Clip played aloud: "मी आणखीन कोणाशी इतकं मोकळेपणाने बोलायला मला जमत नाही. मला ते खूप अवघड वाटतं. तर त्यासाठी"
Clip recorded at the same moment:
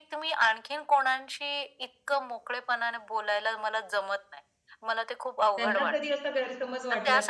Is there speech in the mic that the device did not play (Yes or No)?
Yes